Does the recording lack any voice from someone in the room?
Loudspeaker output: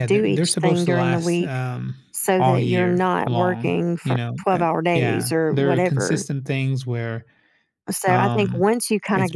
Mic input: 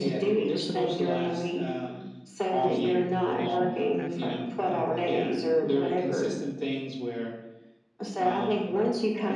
No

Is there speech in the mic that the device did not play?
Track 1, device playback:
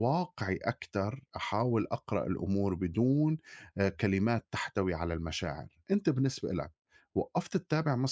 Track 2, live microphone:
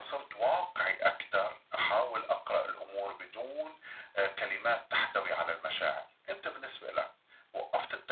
No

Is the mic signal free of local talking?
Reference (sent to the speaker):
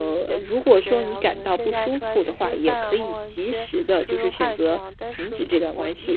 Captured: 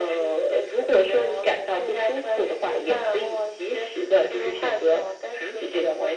Yes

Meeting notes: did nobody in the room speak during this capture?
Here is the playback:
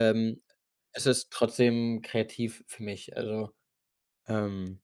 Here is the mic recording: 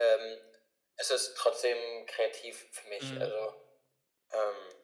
No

